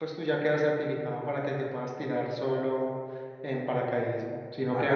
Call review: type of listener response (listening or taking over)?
taking over